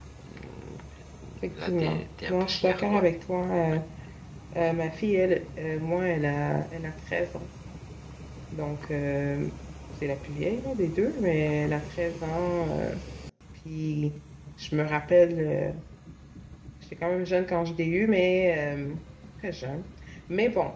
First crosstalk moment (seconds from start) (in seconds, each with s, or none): 1.5 s